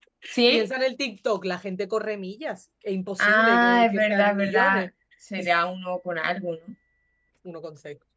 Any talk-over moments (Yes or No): Yes